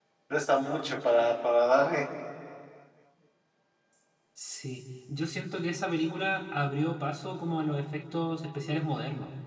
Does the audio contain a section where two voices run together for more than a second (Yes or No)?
No